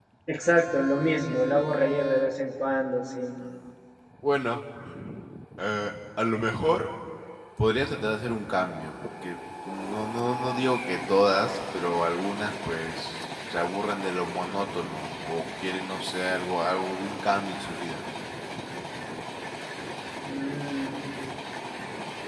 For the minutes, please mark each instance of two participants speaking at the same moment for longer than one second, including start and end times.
none

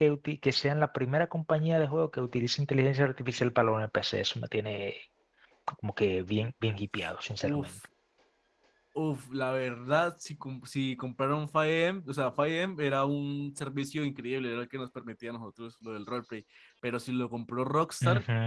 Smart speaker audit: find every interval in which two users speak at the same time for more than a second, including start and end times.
none

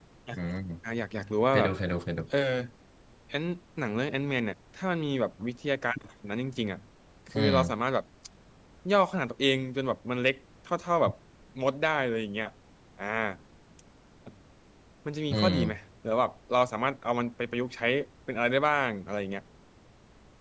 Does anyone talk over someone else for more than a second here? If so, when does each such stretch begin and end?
none

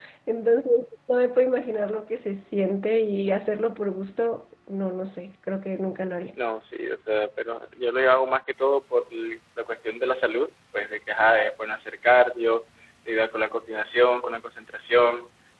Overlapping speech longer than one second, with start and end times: none

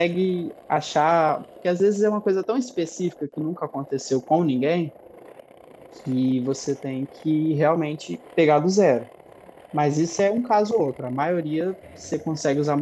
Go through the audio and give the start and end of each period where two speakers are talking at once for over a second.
none

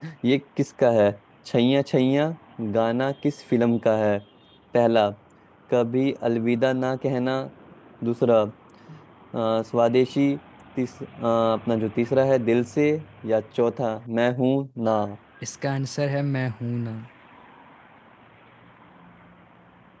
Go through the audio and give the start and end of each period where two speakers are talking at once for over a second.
none

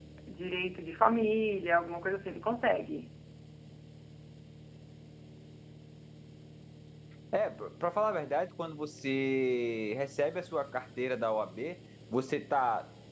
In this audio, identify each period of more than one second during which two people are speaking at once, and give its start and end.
none

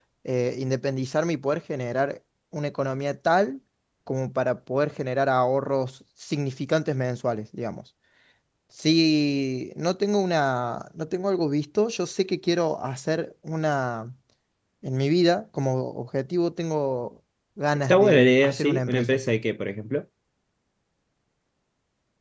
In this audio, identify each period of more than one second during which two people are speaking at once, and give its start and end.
17.9-19.2

